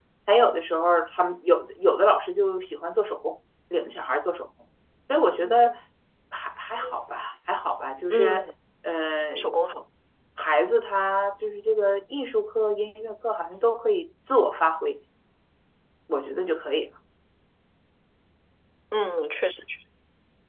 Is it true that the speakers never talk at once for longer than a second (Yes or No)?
Yes